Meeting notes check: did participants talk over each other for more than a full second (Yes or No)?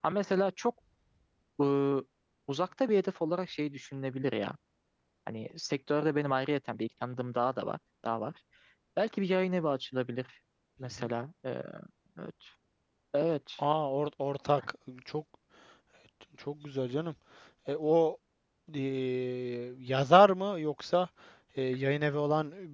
No